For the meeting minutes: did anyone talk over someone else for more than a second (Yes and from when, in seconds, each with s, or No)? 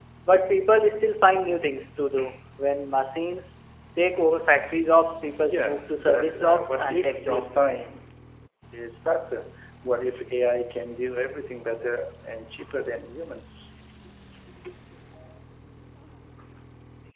Yes, from 5.4 s